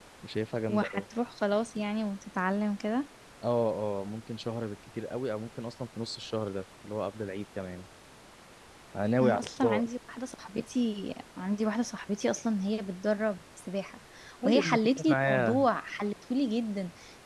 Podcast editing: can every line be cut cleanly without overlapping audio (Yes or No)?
No